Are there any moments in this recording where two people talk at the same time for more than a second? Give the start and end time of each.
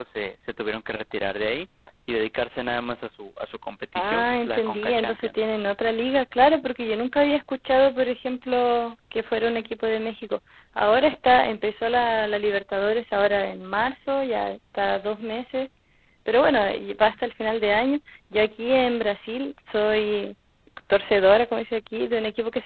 4.0-5.5

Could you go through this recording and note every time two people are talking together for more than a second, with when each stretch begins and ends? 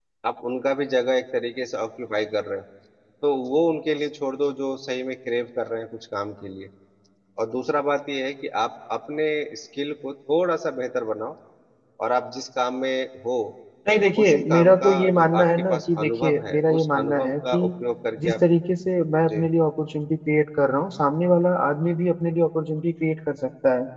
14.2-17.6

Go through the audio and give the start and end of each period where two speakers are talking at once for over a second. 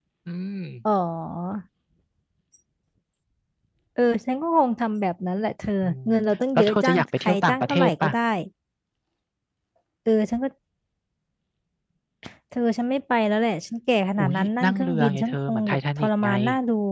6.6-8.1, 14.2-16.3

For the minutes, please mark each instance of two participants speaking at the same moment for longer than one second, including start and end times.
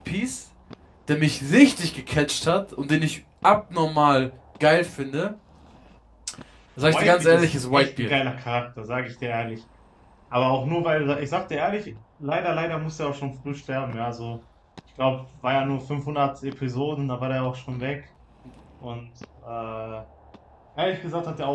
6.8-8.1

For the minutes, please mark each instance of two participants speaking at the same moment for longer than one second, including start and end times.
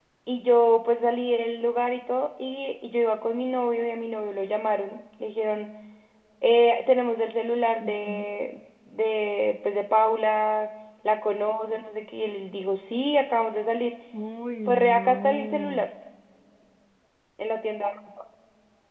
14.6-15.8

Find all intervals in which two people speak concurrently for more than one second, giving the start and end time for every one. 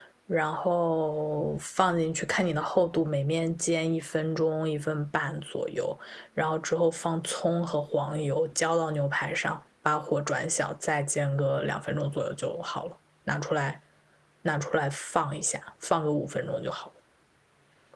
none

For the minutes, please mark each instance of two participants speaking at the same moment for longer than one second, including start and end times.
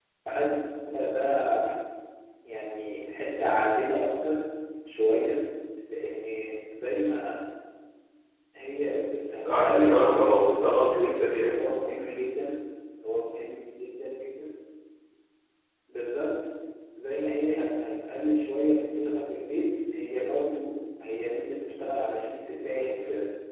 9.5-11.6

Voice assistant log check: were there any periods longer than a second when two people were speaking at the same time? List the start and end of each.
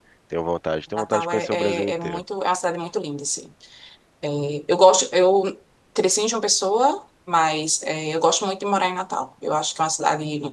1.0-2.2

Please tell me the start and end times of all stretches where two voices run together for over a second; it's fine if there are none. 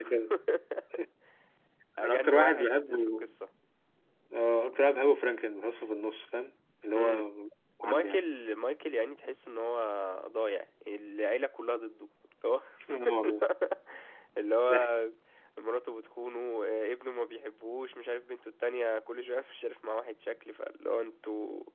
2.0-3.3

